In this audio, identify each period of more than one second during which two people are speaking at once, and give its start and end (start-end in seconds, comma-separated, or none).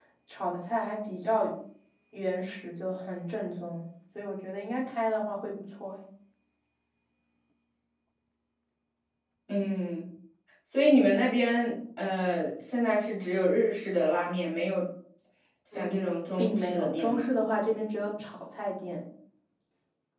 15.7-17.2